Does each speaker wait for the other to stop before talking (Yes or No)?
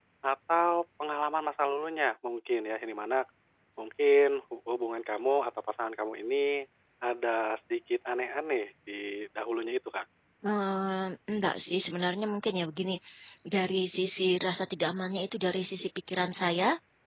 Yes